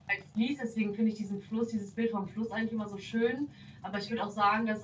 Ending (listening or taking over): listening